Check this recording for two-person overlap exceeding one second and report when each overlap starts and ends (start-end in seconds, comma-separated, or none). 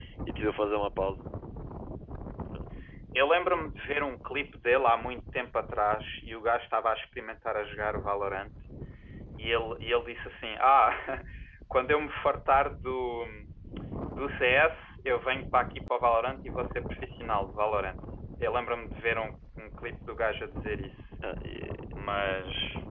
none